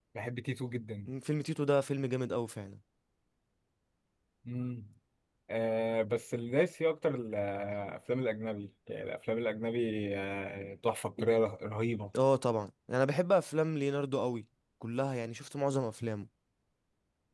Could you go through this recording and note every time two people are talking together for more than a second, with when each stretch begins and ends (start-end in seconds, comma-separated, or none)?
none